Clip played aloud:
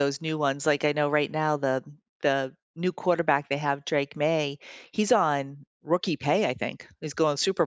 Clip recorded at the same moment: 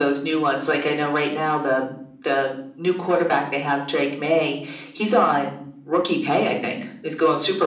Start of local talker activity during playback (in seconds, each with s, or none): none